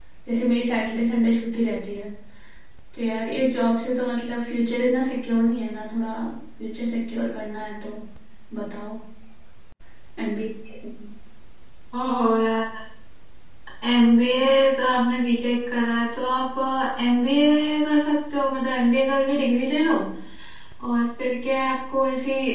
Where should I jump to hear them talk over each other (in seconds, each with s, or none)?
none